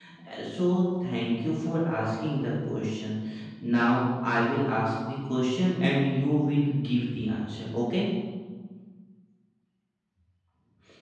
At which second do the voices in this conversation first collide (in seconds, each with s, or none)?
none